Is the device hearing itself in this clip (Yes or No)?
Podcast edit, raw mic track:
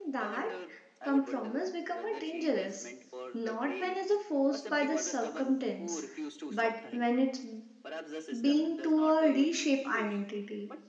Yes